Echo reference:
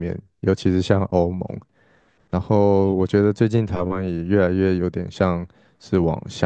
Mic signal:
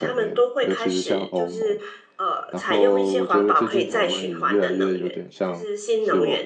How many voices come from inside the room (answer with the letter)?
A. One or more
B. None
A